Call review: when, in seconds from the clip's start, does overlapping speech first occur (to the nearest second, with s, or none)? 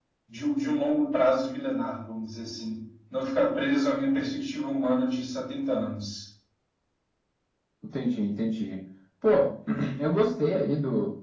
none